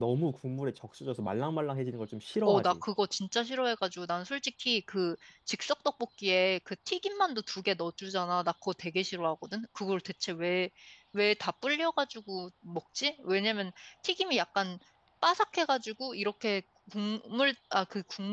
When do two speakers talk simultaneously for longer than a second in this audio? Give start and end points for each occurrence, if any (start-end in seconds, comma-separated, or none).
none